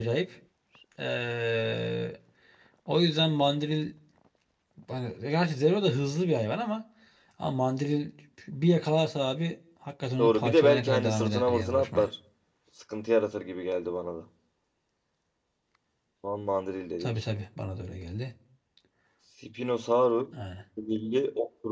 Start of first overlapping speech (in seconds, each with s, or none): 10.2 s